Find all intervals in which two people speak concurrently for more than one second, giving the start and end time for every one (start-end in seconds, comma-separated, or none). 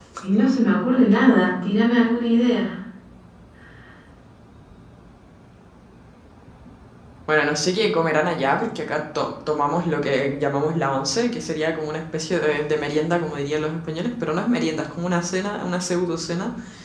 none